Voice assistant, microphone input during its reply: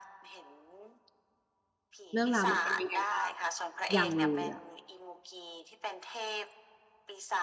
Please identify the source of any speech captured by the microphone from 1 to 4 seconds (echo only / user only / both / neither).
both